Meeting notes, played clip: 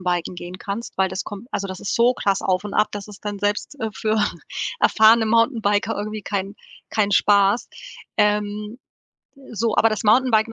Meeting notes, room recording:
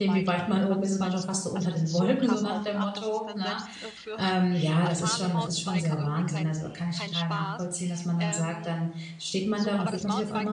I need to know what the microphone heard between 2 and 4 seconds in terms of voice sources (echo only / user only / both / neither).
both